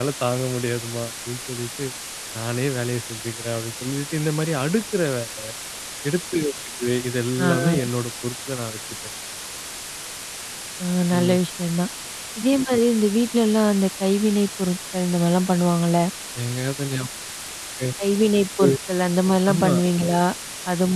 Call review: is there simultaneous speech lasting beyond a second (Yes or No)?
No